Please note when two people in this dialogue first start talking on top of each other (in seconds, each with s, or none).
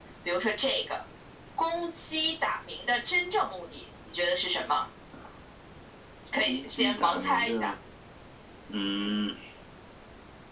6.4 s